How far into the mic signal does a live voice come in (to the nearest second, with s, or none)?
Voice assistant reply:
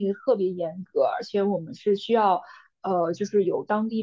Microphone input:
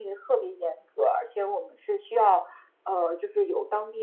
none